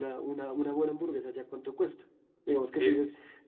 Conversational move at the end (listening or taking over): listening